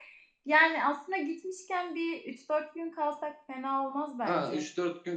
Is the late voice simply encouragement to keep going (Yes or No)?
No